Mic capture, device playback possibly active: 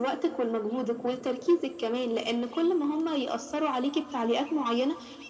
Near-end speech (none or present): none